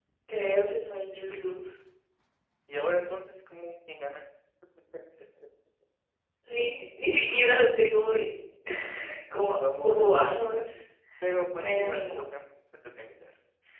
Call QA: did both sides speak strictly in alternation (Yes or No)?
No